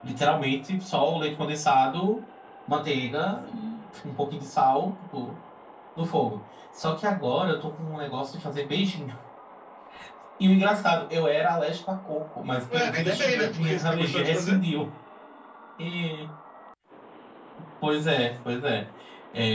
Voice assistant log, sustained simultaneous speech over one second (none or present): present